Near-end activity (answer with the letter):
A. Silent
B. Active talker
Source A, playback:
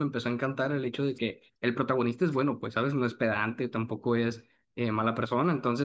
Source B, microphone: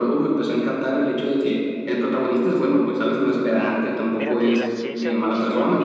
B